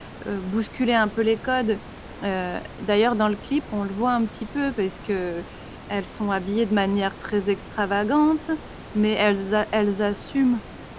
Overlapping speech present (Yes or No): No